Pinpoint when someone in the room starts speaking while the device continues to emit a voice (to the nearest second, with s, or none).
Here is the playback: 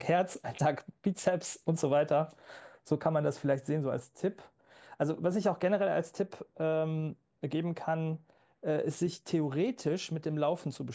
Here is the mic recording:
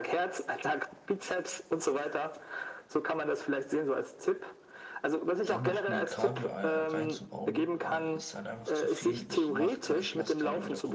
5 s